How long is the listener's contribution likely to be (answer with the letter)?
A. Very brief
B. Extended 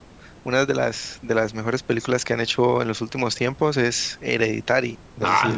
B